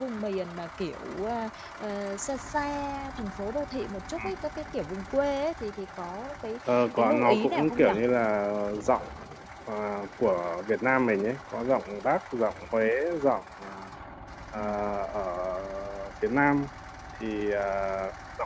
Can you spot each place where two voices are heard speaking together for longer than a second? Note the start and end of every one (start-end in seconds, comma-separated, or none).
6.7-8.0